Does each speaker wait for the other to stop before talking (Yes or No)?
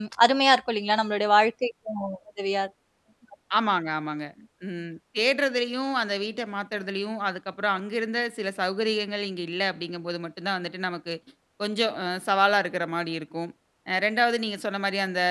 Yes